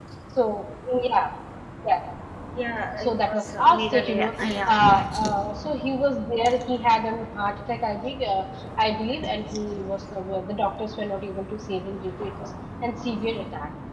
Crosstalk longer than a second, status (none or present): present